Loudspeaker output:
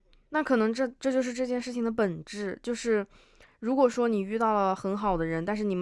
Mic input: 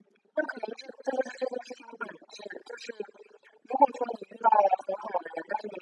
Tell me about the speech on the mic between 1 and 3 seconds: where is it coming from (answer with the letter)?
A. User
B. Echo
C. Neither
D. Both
B